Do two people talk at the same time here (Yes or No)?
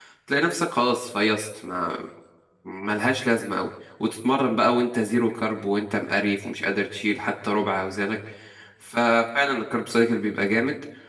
No